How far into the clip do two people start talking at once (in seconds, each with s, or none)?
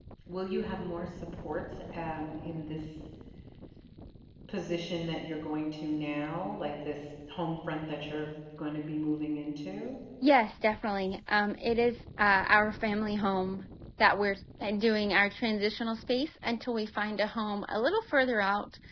none